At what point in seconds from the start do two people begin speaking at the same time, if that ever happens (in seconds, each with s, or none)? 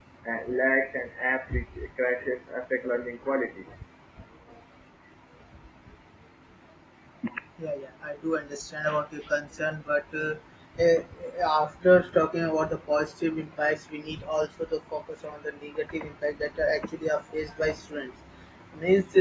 none